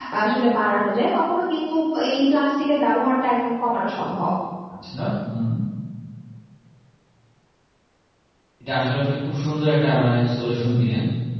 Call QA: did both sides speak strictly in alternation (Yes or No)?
Yes